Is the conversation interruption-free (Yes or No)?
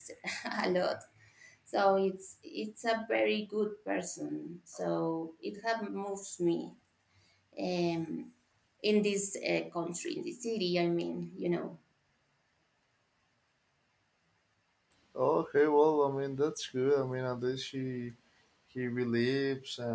Yes